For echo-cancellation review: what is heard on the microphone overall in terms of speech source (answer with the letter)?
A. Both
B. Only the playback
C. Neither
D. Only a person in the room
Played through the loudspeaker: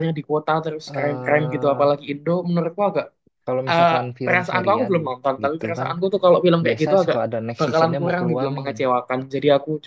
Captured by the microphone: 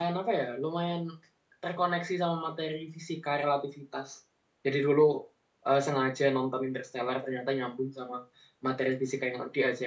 D